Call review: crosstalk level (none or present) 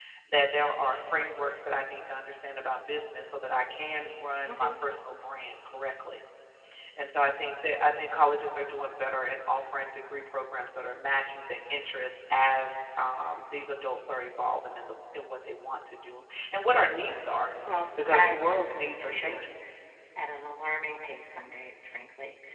present